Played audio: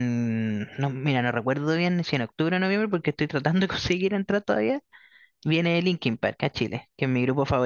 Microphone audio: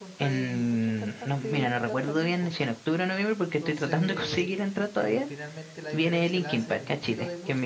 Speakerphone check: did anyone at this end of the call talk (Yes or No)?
Yes